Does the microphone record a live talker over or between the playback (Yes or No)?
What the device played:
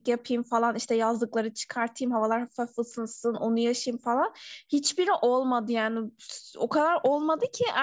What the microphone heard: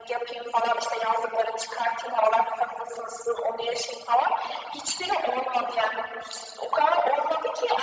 No